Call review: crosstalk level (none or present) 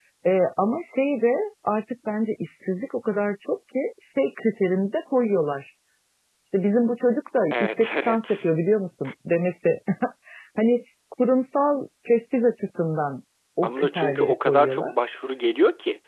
present